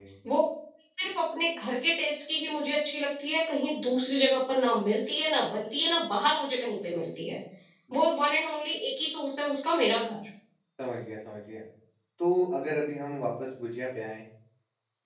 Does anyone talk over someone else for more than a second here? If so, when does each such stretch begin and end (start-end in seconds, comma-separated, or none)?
none